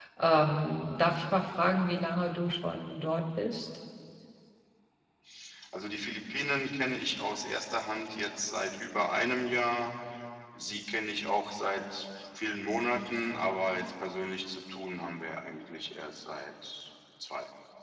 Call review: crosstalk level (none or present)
none